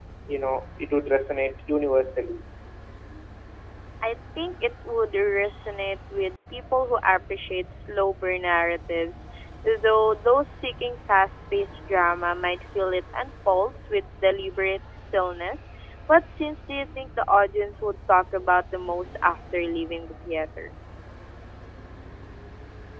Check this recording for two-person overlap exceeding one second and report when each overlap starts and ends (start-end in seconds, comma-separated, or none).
none